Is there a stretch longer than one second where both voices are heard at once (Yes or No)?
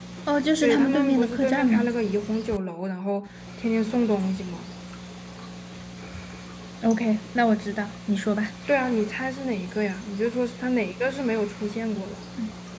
Yes